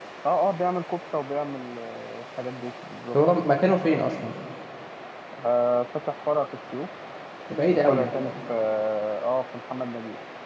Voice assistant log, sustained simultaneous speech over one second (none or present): none